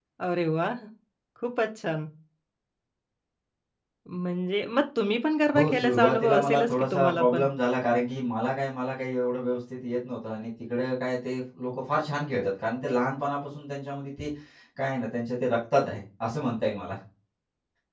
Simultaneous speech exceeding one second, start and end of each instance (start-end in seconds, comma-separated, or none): 5.6-7.4